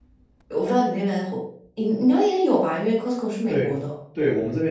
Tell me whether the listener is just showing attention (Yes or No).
No